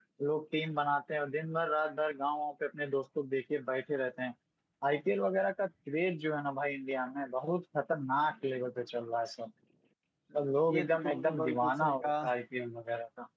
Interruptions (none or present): present